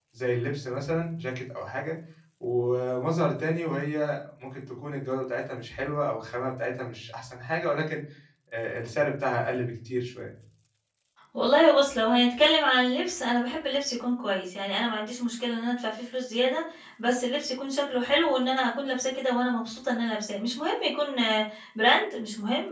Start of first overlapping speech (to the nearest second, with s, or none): none